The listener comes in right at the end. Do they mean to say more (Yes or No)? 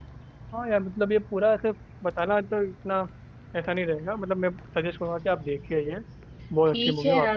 Yes